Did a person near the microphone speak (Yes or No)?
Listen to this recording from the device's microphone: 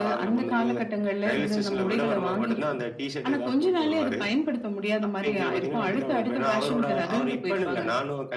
No